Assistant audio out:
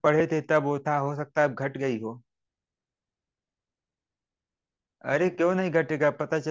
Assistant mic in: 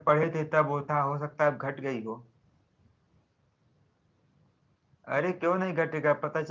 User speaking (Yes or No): No